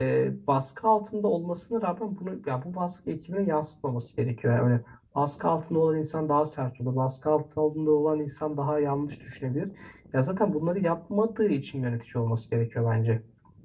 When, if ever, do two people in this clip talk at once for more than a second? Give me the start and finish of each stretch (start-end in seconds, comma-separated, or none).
none